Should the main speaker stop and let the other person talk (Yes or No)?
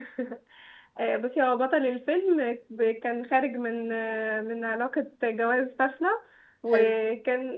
No